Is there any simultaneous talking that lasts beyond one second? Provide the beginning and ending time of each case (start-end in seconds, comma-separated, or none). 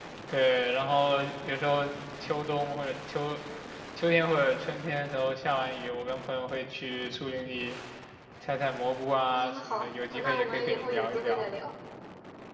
9.3-11.4